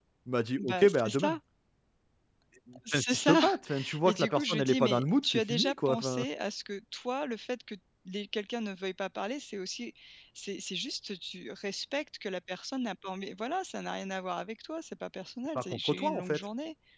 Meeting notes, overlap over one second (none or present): present